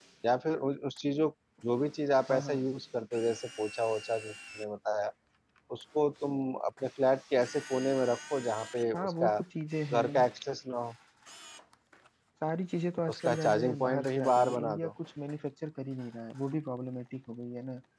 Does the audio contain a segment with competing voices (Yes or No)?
Yes